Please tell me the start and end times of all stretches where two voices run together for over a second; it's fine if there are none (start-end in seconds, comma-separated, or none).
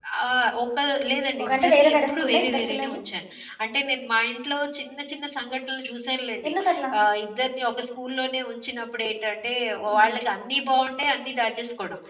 1.4-3.0